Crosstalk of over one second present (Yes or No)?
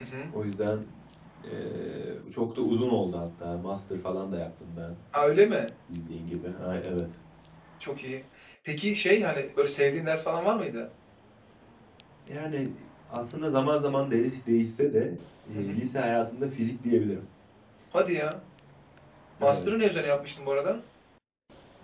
No